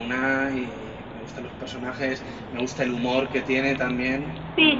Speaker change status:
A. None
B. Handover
B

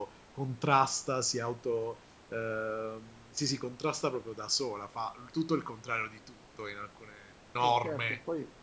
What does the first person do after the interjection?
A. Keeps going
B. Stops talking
B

